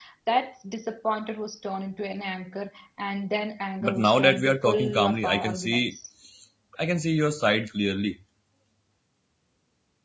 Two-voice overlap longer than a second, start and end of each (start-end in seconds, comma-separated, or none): 3.8-6.0